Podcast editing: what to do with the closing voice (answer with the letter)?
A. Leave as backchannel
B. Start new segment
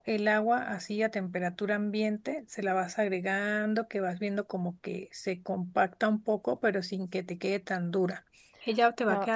B